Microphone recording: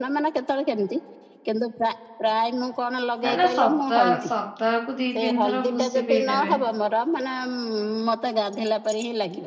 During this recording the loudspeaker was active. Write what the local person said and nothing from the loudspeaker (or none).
ନା ନା ସପ୍ତା ସପ୍ତାହକୁ ଦି, ତିନି ଥର ଭୁସି ପିଇଦେବେ।